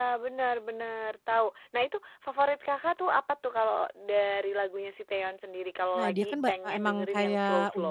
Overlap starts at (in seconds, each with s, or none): 6.0 s